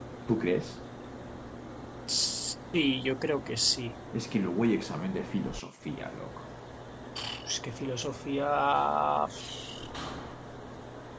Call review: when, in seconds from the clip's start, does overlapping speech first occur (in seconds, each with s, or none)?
none